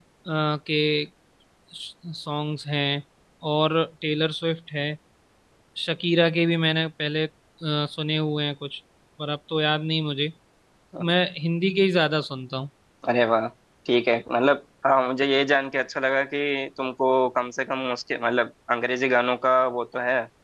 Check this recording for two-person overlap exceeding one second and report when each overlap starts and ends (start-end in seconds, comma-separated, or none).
none